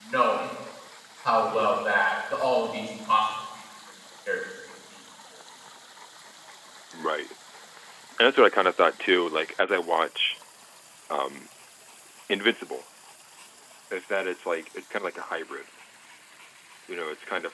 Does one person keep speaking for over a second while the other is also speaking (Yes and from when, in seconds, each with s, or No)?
No